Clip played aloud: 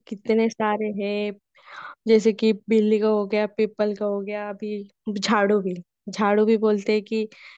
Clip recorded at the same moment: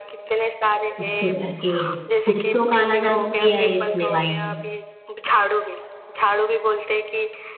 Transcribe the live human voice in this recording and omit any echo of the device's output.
तो करके गया है। कुछ तो काला जादू किया है इसने भाई

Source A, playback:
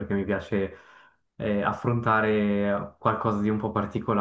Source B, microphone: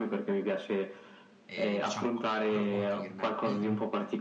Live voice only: e, diciamo, approfondirne. Mm, mm.

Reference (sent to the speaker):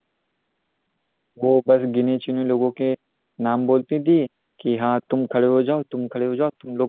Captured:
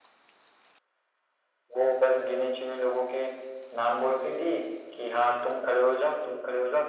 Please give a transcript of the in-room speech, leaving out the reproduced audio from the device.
none

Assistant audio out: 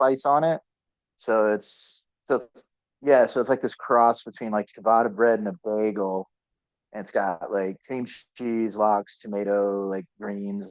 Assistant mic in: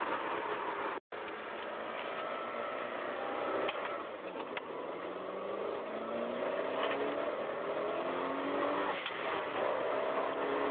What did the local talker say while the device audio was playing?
none

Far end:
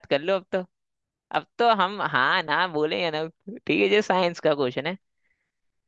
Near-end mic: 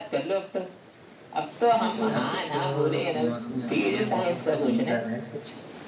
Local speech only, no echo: है तो यार कुछ दिमाग में आने वाला है घूम रहा है कुछ

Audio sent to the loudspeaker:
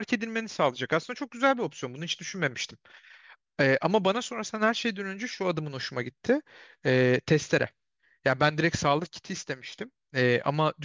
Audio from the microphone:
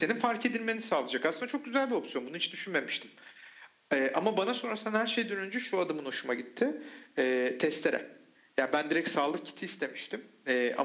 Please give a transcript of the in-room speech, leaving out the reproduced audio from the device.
none

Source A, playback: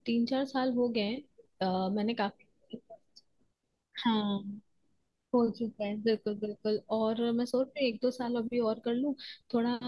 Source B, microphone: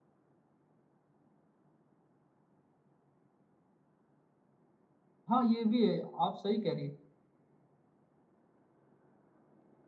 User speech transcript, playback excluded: हाँ ये भी है आप सही कह रही हैं

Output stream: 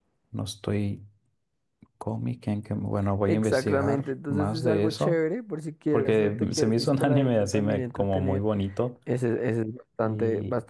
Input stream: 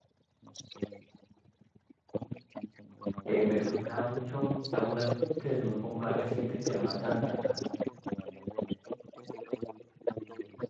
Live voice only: Eh, me gusta mucho a una que es un poco más reciente que se llama Dan Dan Dan.

